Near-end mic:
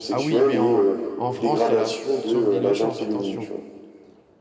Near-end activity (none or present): present